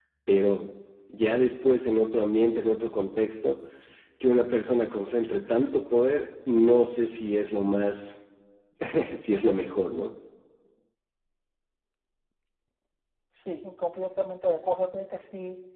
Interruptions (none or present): none